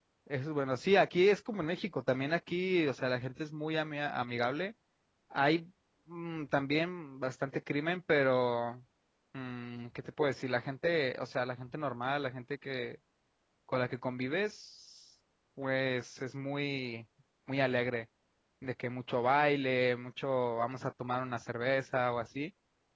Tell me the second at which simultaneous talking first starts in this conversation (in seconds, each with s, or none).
none